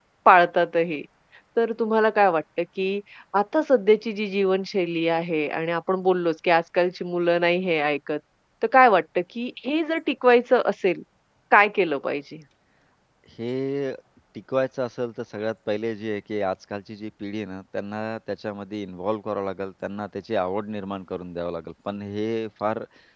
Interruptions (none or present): none